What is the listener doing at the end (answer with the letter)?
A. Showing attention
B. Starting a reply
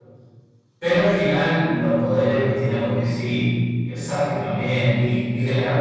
A